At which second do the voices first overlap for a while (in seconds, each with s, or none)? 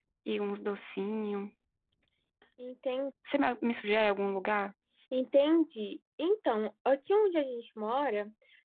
none